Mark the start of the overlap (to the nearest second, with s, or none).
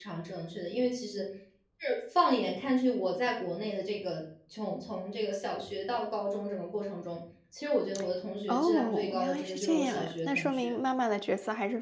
8 s